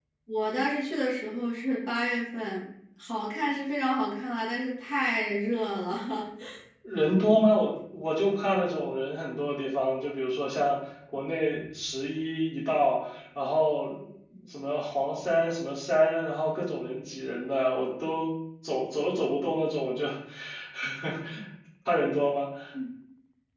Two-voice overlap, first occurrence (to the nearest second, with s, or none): none